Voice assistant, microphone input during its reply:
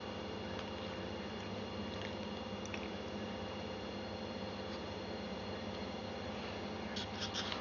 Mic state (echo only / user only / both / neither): neither